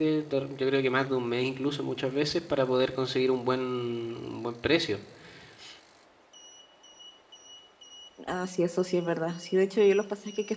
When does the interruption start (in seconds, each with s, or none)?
none